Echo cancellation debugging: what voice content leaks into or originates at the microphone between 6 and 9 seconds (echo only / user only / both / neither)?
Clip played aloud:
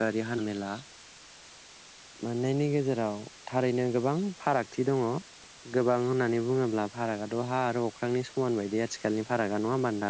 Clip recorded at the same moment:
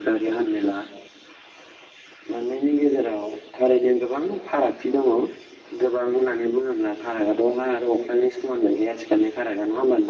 echo only